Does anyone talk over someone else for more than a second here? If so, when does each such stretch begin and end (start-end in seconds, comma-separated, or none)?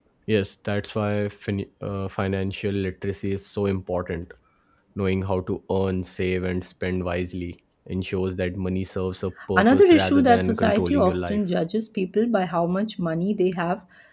9.6-11.4